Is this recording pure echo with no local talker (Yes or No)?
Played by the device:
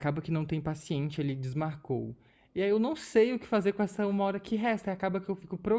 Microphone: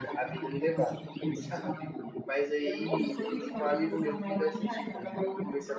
No